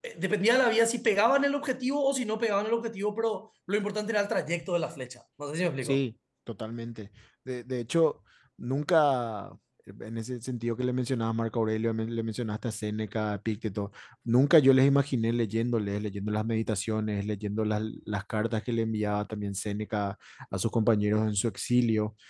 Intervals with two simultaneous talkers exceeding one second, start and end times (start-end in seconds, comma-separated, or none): none